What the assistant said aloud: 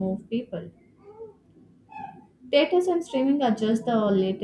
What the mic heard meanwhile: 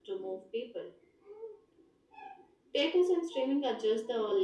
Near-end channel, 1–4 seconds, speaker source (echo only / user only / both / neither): echo only